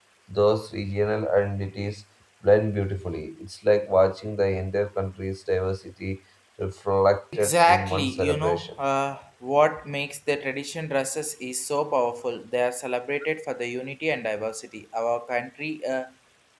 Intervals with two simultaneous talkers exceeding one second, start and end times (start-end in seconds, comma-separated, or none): 7.4-8.7